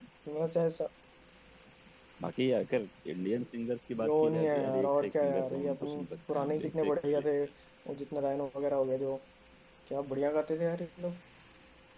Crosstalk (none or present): present